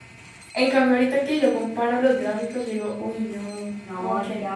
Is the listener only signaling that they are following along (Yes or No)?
No